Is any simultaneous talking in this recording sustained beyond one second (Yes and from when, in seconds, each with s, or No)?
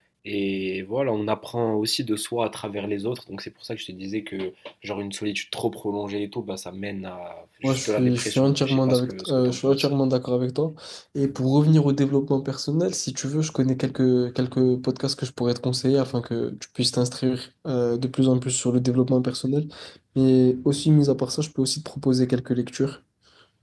Yes, from 7.6 s